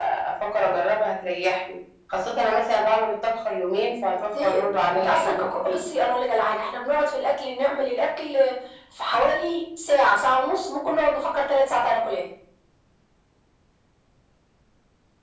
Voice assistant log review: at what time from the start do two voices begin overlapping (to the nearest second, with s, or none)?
4 s